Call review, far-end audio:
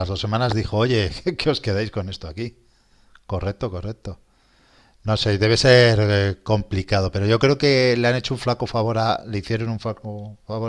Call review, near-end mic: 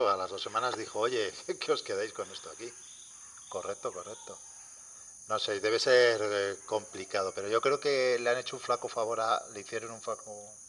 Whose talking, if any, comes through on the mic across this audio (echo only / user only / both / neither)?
echo only